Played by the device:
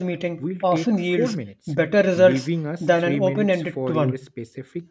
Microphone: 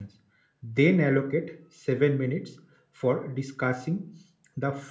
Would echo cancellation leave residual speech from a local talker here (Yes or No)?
Yes